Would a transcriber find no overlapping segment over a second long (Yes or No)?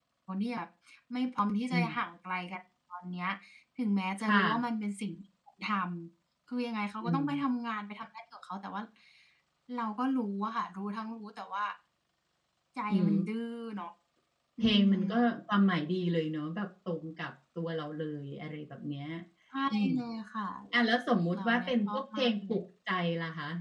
No